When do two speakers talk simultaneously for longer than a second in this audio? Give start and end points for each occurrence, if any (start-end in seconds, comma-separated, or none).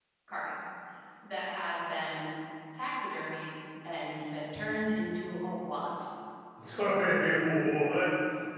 none